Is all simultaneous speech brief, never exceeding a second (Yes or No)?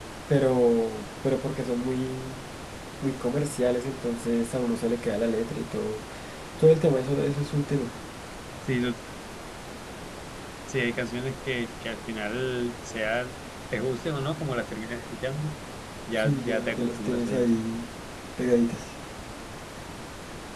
No